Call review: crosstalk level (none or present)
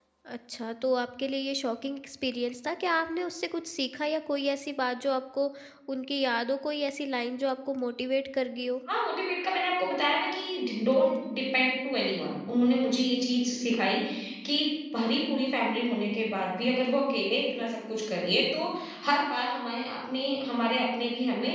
none